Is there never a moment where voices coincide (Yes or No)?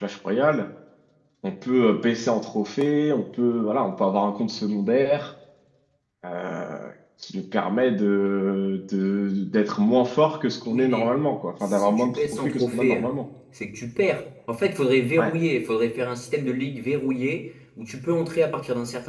No